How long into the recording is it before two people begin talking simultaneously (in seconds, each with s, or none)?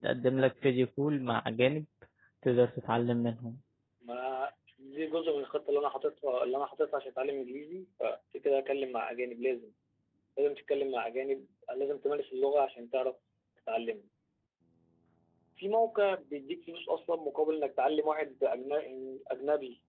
none